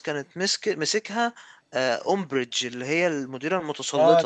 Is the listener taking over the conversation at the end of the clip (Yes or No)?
Yes